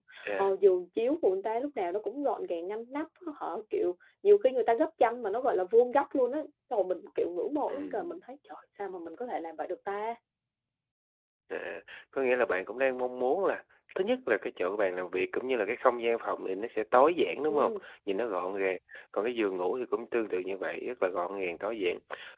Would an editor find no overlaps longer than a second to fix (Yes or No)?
Yes